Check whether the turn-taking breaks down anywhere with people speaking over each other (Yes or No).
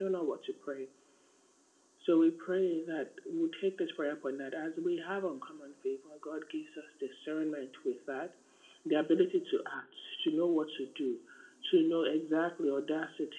No